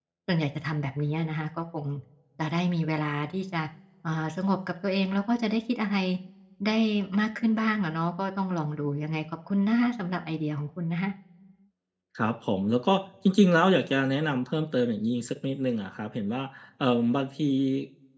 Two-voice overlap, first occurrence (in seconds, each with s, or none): none